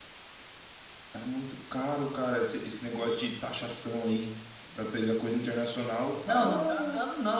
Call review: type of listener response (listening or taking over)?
taking over